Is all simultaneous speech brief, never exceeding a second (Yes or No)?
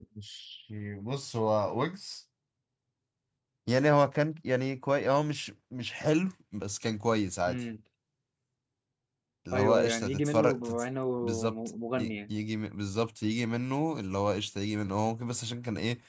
No